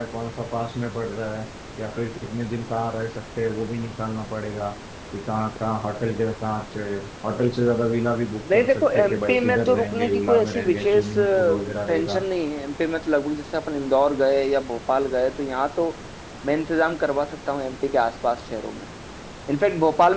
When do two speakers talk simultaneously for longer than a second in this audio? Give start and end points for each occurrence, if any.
8.5-12.2

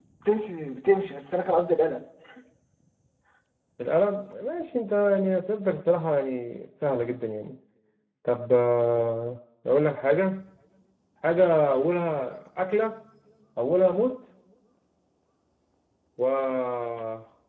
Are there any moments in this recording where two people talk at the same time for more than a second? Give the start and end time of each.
none

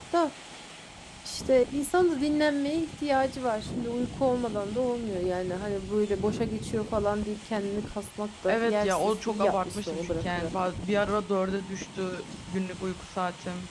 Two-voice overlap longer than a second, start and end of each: 8.5-10.5

